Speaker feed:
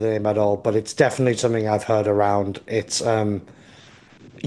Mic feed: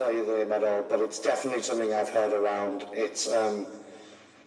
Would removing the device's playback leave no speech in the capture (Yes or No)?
Yes